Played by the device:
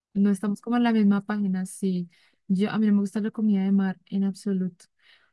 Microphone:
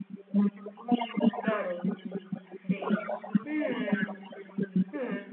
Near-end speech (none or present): present